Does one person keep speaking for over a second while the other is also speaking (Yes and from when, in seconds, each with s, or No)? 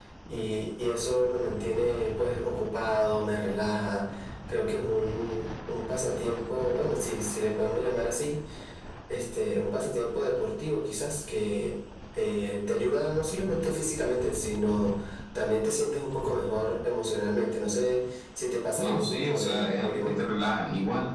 Yes, from 18.8 s